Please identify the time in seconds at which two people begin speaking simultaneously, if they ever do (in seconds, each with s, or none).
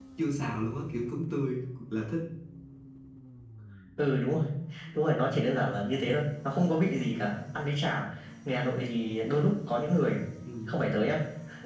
none